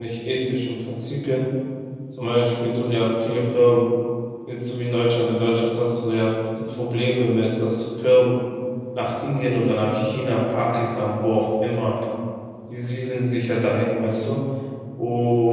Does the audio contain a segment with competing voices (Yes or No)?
No